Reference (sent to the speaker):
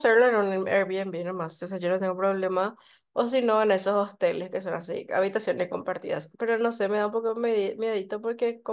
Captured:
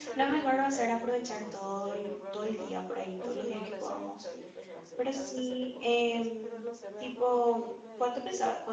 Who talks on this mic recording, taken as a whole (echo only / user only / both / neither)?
both